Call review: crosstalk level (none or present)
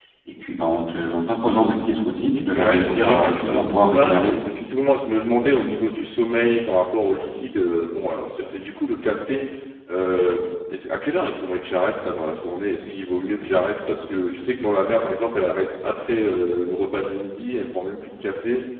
present